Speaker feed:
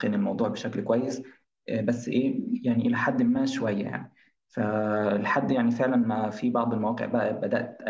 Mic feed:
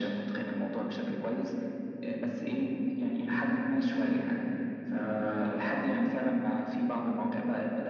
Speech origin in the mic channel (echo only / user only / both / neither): echo only